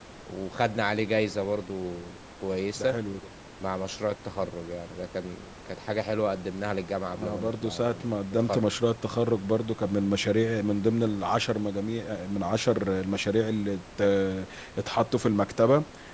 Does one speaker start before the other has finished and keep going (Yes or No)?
Yes